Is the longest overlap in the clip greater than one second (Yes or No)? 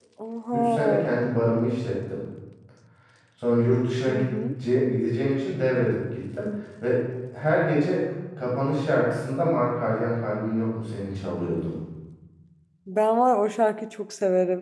No